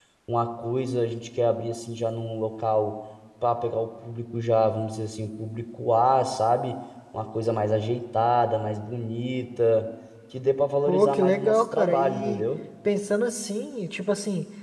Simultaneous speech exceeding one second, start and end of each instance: 10.9-12.4

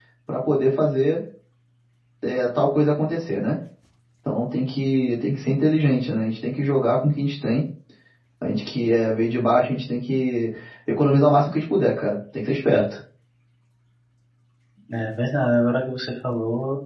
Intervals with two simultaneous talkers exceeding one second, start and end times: none

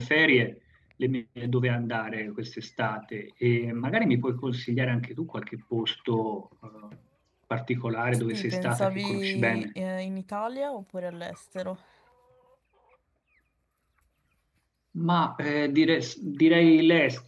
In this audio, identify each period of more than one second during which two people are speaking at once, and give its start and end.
8.3-9.7

